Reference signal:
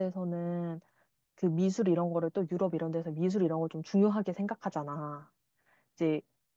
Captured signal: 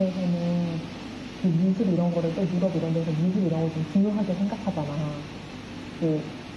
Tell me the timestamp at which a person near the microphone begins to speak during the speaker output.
none

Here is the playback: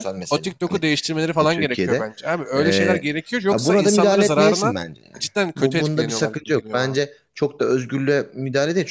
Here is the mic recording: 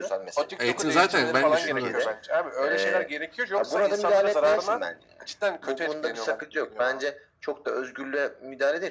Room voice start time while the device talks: 0.6 s

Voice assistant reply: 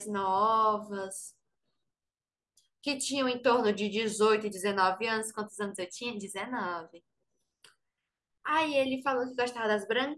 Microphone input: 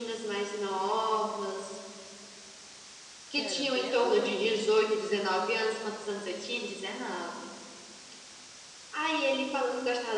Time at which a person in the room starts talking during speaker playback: 3.3 s

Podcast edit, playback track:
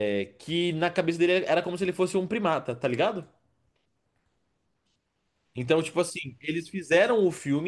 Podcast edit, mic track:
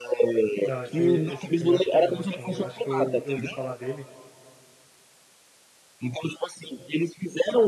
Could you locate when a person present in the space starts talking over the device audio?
0.6 s

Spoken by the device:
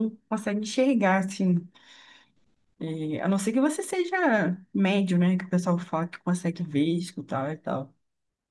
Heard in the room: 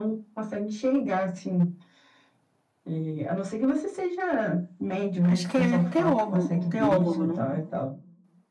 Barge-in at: 5.3 s

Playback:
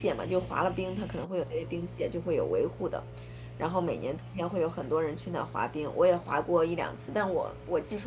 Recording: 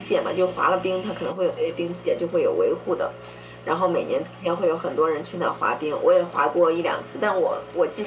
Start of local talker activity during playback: none

